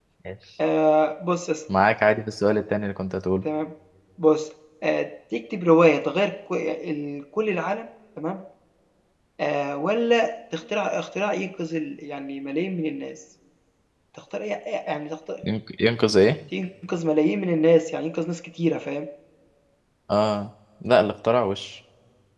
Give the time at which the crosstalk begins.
none

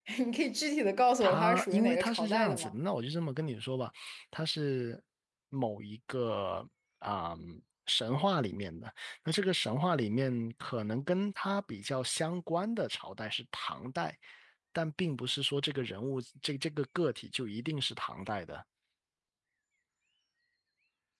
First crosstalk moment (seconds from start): 1.2 s

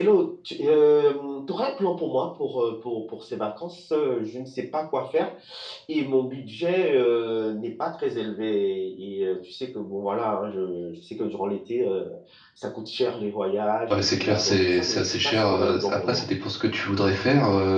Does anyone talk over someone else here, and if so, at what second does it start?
13.9 s

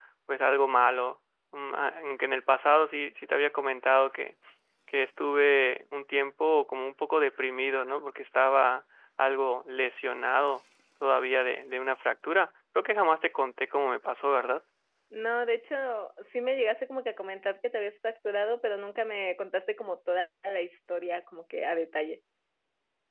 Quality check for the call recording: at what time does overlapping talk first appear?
none

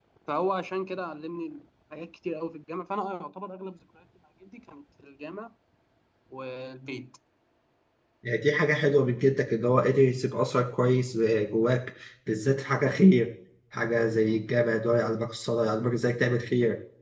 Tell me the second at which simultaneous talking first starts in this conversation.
none

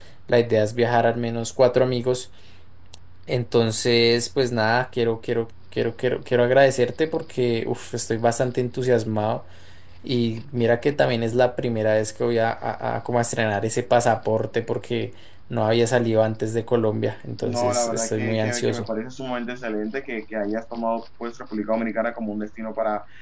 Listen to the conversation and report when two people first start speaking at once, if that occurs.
17.4 s

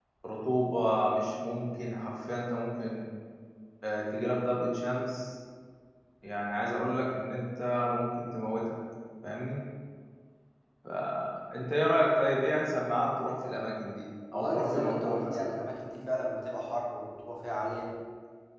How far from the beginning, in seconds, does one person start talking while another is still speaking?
14.3 s

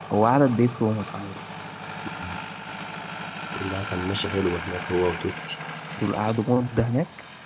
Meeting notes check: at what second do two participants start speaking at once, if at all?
none

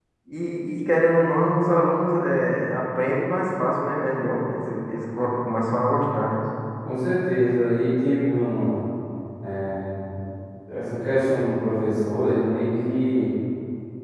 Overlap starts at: none

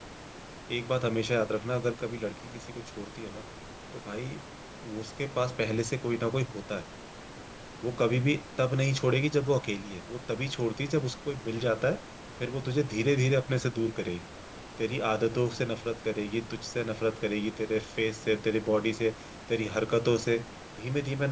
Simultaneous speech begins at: none

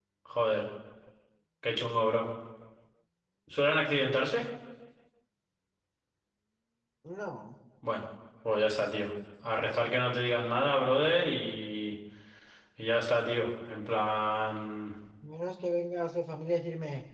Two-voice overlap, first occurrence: none

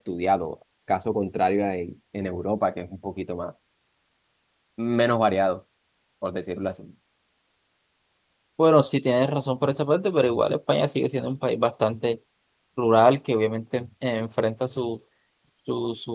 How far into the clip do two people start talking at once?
none

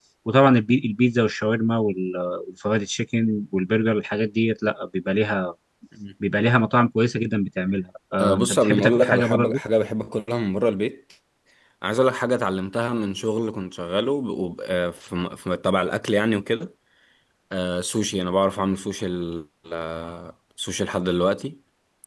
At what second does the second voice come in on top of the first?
8.2 s

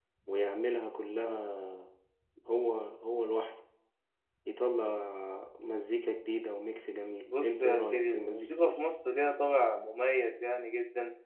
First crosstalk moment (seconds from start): 7.3 s

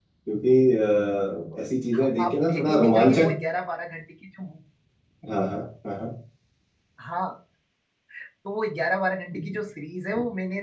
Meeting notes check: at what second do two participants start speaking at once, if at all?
1.9 s

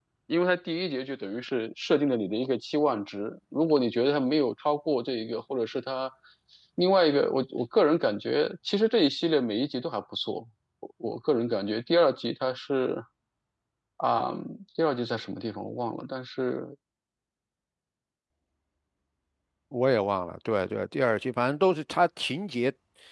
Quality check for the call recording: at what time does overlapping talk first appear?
none

